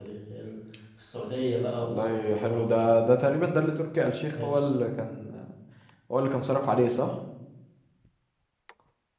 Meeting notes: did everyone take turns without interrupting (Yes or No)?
No